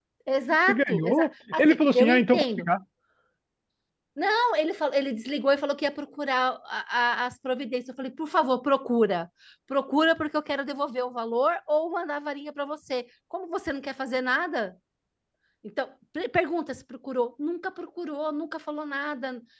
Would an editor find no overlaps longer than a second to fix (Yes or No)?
No